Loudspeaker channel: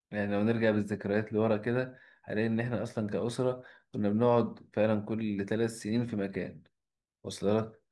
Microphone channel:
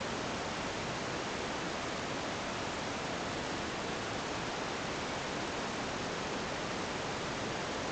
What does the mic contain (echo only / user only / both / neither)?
neither